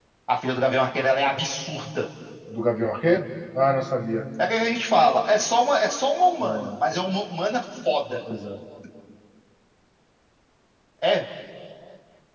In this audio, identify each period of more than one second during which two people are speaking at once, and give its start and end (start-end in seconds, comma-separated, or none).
none